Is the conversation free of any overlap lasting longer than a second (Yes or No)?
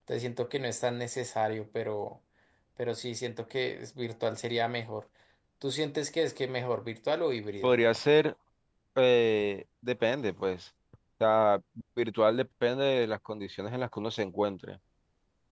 Yes